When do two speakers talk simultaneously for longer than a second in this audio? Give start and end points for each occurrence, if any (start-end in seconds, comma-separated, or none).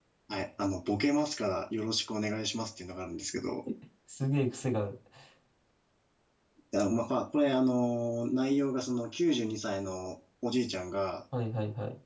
none